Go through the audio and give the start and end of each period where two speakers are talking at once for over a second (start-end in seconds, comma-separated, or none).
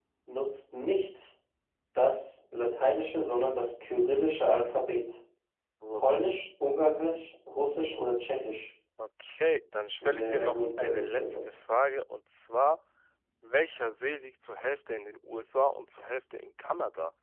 10.0-11.4